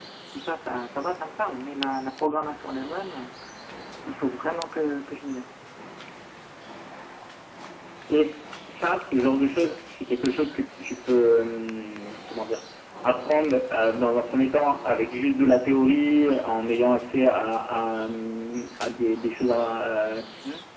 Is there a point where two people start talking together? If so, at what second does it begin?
none

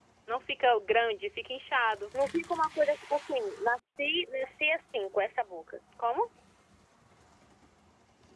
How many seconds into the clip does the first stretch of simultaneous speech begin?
none

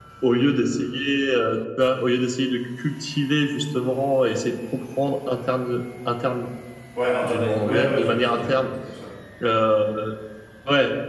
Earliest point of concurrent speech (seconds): 7 s

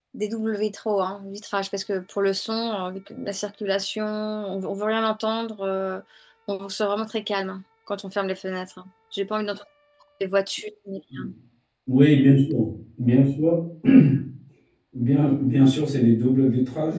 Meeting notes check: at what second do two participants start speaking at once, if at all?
none

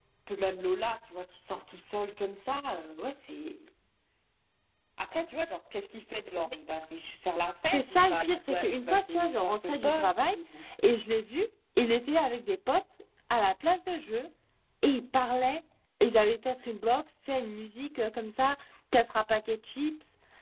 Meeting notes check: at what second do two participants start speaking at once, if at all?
8 s

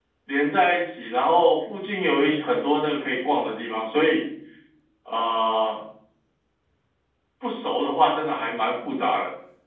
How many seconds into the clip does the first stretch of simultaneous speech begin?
none

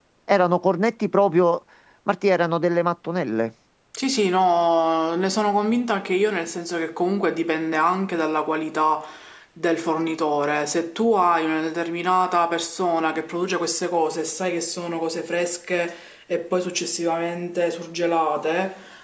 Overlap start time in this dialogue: none

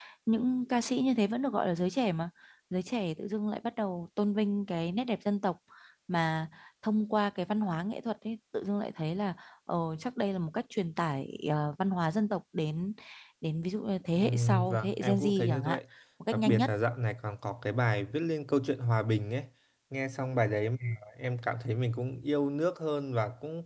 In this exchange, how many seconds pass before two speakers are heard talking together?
14 s

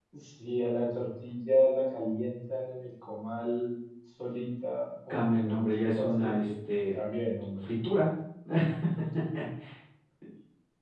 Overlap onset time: 5 s

